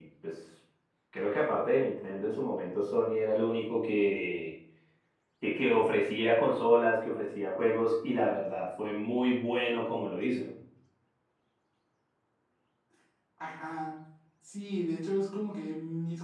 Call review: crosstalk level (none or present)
none